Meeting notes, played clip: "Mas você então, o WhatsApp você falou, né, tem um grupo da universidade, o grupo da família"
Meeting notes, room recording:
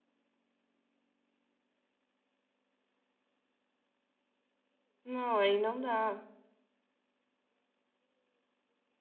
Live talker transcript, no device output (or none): Não, aí não dá.